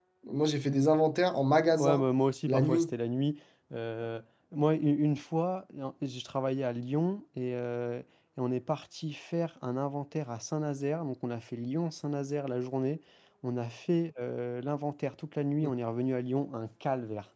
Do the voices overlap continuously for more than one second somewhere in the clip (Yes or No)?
No